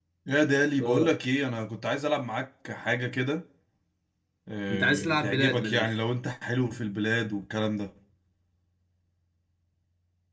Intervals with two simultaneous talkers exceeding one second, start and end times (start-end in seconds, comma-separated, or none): 4.7-5.9